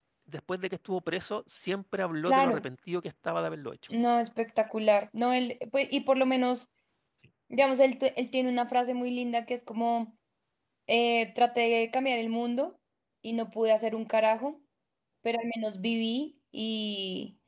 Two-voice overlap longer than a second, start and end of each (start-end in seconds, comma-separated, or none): none